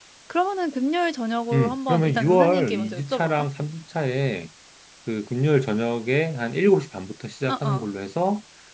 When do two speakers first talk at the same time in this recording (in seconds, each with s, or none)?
1.5 s